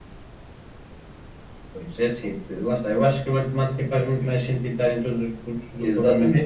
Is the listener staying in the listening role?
No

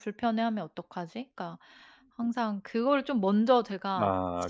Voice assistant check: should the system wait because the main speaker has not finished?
Yes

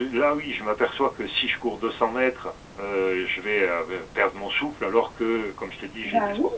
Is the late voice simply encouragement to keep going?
Yes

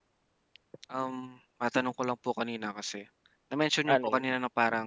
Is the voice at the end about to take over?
No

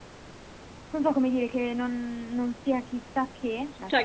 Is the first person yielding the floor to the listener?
Yes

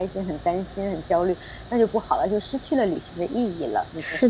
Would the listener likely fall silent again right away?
No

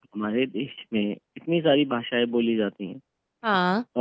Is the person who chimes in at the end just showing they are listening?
Yes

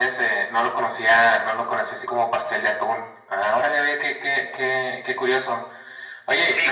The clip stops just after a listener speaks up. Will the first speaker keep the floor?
No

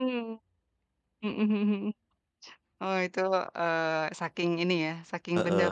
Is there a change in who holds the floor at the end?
Yes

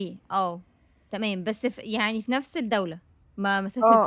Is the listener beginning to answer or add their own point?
Yes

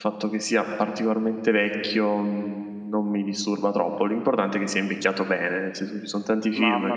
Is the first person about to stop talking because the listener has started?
Yes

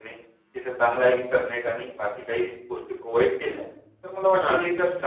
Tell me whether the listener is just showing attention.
Yes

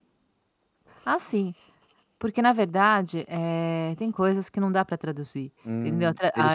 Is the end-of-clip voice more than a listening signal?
Yes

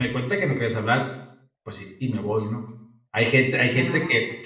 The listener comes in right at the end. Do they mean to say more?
No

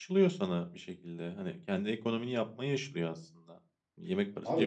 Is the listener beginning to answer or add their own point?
Yes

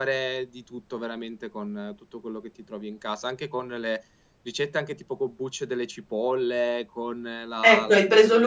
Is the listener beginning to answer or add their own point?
Yes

